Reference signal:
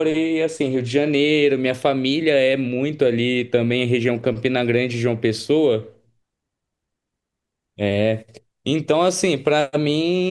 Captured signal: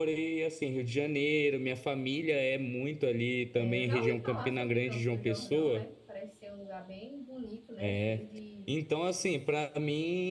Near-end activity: present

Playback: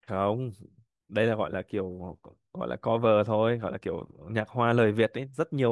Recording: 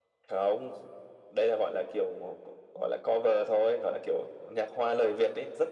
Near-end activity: none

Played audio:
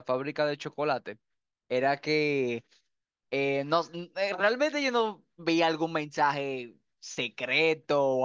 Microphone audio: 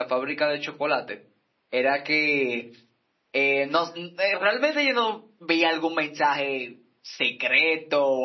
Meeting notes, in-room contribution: none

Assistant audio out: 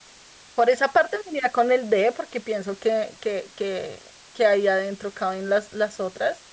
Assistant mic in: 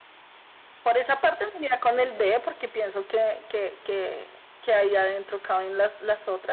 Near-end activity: present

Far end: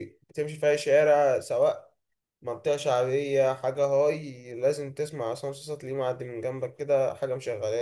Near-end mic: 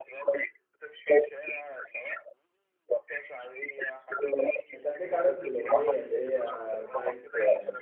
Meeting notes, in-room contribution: present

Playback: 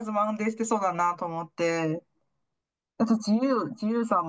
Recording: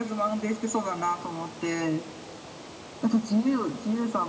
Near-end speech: none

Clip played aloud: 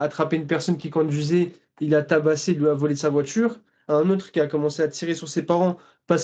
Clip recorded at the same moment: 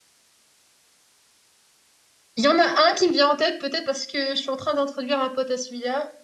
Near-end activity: present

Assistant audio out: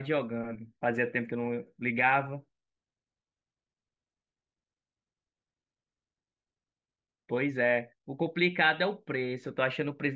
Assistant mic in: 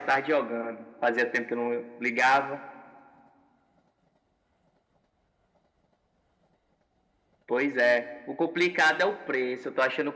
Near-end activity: none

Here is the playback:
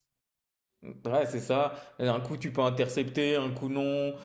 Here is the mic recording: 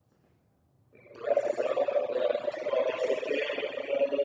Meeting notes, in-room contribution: none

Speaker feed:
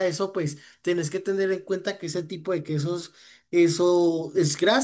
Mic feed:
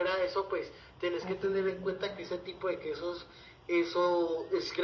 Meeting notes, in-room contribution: present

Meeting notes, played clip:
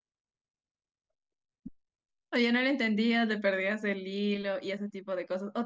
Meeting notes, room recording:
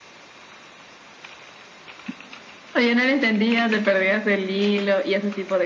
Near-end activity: none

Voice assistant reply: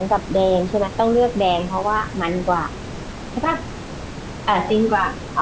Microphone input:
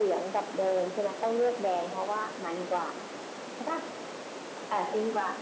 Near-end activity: none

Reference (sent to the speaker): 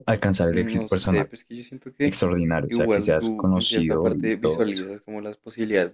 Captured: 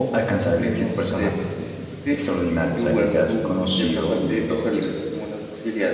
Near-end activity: none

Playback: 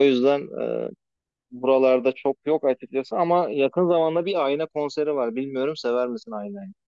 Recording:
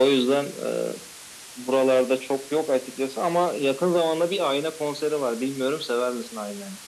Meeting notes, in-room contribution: none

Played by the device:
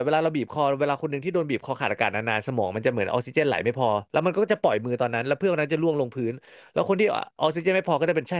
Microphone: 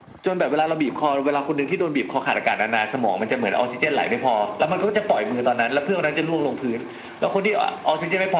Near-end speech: none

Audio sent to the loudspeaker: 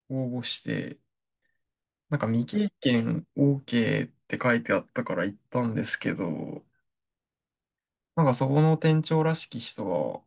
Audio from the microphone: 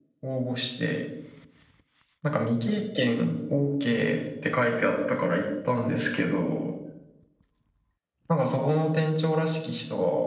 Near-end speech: none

